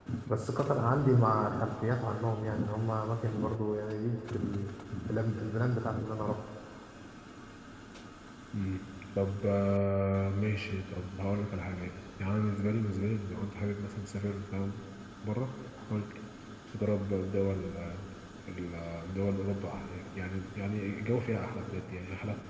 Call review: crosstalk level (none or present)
none